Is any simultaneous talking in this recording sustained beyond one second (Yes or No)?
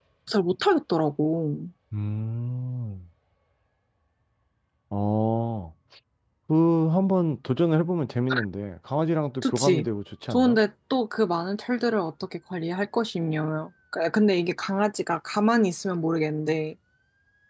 No